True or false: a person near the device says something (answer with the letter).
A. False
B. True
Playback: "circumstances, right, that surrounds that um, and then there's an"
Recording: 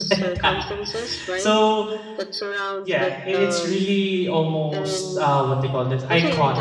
B